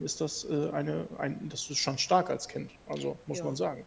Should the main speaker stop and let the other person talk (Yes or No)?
Yes